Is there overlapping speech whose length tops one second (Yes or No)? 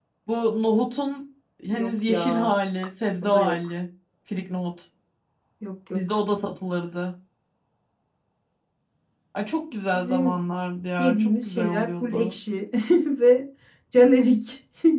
Yes